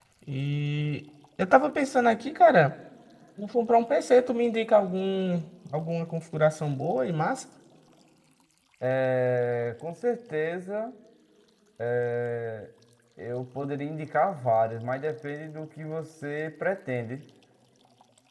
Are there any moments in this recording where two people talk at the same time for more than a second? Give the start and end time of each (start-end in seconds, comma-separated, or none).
none